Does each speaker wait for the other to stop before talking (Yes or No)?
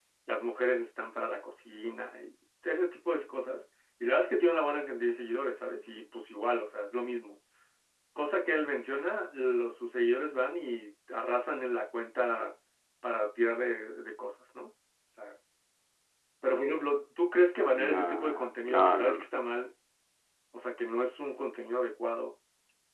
No